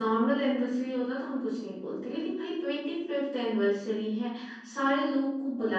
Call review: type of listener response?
listening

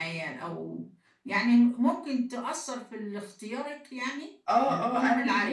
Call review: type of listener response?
taking over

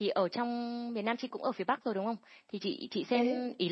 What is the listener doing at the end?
listening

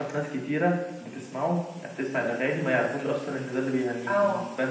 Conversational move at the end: taking over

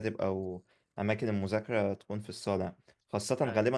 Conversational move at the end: listening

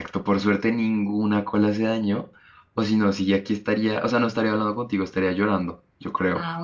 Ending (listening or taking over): taking over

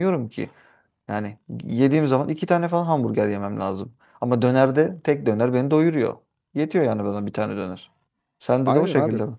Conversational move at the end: taking over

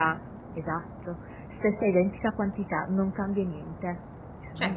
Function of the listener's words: taking over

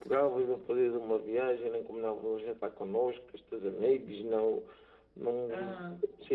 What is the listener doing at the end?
taking over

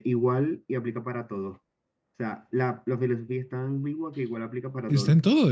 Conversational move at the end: taking over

